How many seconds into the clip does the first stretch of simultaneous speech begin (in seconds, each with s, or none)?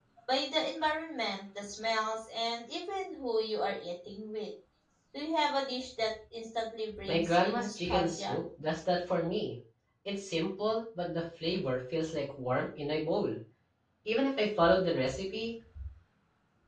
6.9 s